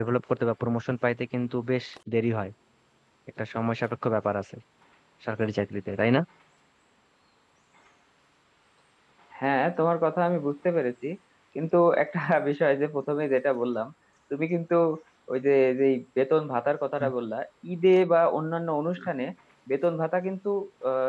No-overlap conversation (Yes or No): Yes